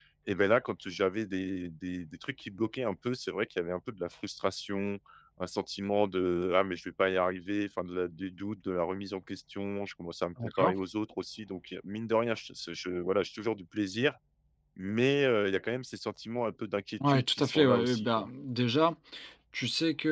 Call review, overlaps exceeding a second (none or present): present